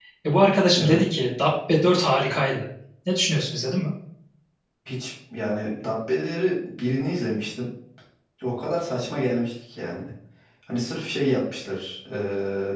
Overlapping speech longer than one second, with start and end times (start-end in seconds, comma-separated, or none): none